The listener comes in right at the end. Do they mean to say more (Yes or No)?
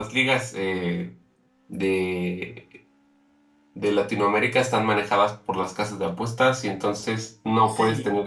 No